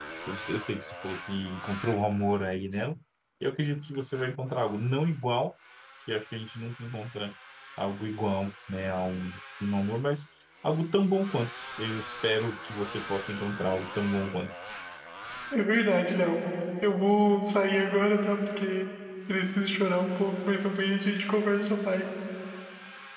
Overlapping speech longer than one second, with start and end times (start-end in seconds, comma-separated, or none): none